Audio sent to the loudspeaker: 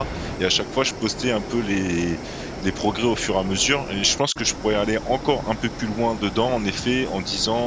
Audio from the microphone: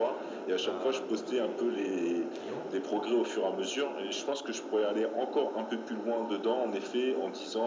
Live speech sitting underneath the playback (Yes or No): Yes